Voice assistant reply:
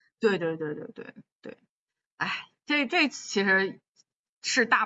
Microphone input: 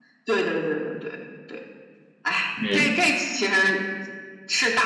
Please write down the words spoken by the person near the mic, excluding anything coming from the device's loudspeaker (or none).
嗯